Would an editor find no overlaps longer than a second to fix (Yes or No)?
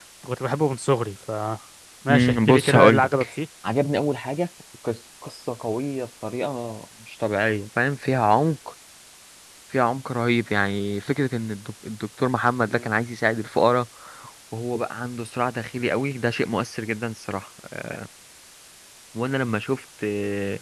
No